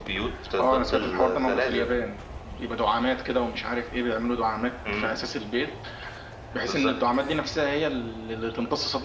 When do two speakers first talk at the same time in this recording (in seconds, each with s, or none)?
0.6 s